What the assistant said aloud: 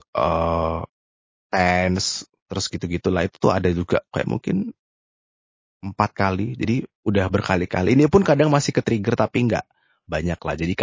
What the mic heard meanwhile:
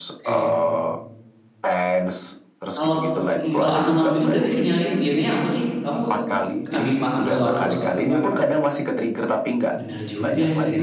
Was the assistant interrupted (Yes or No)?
Yes